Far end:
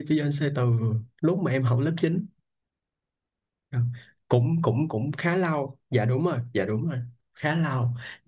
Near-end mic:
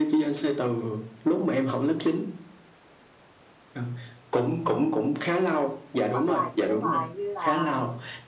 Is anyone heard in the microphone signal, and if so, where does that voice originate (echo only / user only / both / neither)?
both